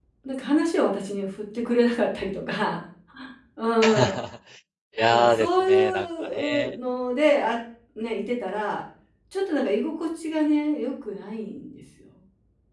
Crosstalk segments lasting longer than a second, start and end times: 5.1-6.8

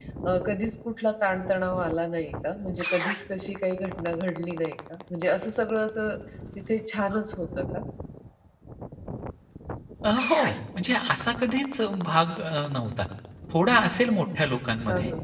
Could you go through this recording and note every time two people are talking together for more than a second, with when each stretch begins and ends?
none

